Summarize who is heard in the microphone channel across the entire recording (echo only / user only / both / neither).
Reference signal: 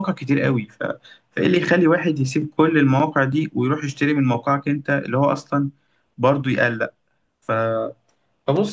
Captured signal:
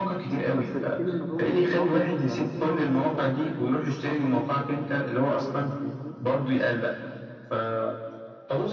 both